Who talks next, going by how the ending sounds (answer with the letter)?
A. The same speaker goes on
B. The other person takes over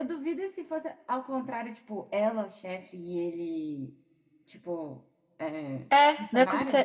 B